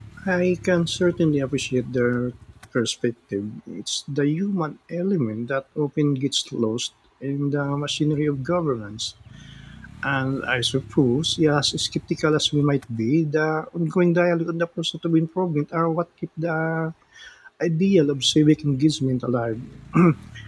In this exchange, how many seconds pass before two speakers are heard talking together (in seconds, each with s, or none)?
none